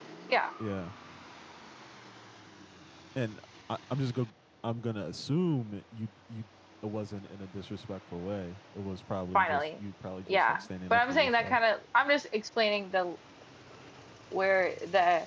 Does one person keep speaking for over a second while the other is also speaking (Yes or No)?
Yes